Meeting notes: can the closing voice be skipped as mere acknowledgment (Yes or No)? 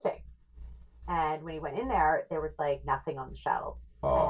Yes